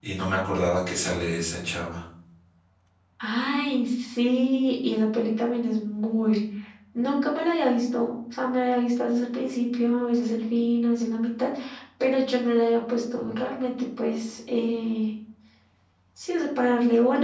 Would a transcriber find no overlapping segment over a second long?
Yes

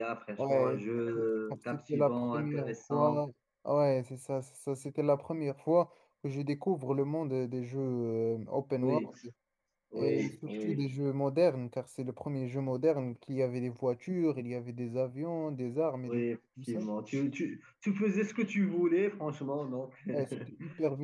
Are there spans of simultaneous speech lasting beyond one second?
Yes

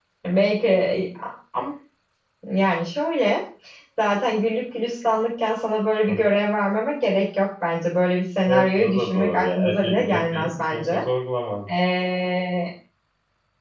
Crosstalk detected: Yes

